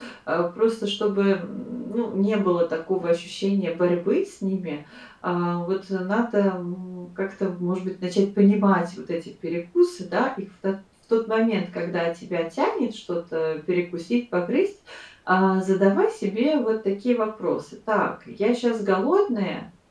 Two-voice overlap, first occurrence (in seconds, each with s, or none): none